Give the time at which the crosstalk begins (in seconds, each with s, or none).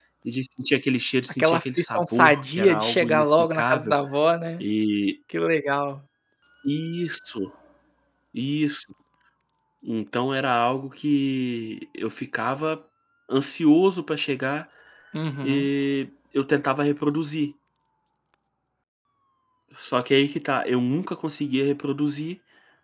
1.4 s